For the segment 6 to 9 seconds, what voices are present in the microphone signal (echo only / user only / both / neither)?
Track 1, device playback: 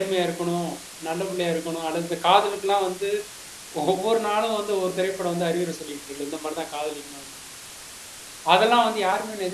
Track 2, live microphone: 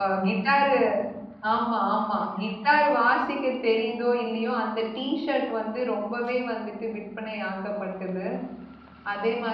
user only